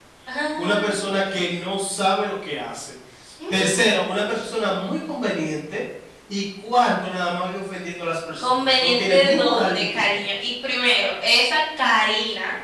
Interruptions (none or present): present